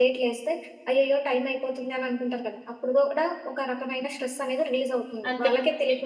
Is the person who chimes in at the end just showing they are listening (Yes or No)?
No